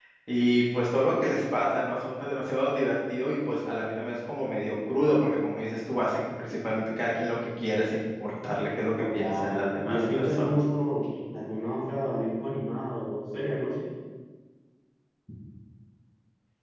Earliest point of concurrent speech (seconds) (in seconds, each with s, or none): 9.0 s